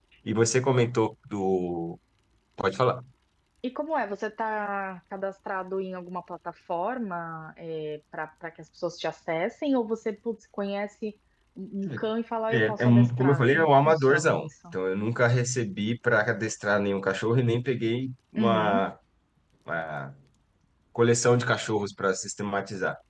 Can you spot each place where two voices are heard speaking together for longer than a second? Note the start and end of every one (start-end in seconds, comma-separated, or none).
12.5-14.5